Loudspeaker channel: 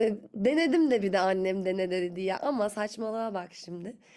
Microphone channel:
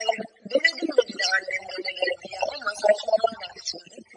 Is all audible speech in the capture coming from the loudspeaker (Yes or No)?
Yes